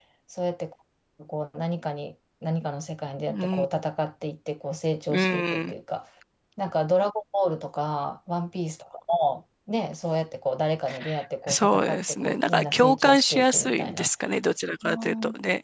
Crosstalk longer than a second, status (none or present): present